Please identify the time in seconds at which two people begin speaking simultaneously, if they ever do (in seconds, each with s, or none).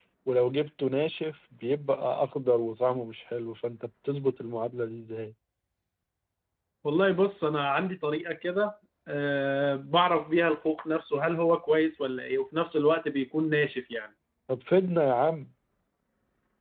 none